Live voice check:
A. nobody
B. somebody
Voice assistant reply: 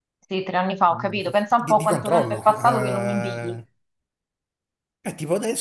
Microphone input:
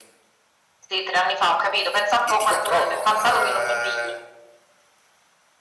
A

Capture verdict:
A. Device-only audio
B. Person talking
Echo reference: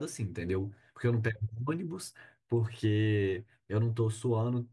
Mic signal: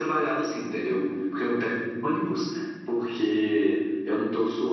A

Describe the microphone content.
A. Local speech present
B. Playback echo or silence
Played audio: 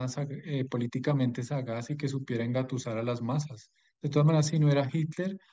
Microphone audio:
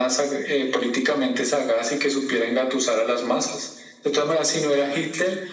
B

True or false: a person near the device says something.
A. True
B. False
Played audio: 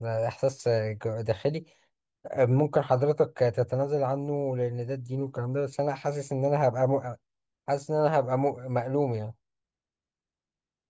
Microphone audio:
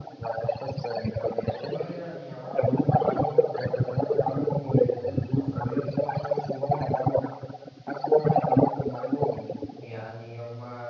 A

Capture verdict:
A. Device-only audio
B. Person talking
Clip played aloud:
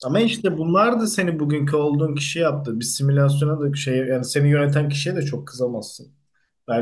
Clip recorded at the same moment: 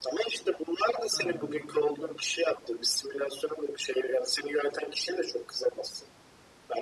B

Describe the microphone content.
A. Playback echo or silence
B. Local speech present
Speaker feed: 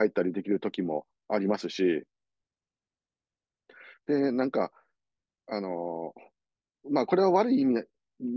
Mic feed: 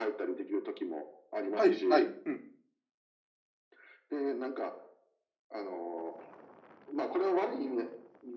B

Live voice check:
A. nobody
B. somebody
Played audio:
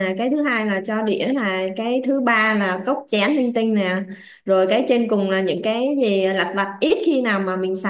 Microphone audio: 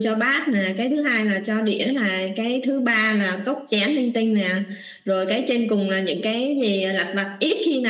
A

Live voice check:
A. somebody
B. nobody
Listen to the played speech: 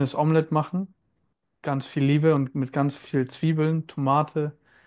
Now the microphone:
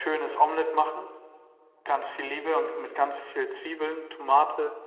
B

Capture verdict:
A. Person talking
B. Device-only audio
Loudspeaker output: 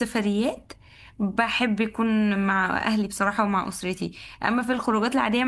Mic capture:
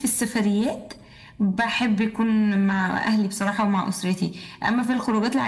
B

